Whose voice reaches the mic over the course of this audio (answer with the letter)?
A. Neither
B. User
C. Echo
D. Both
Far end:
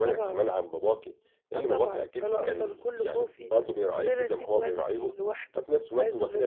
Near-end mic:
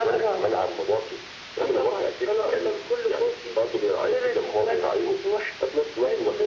C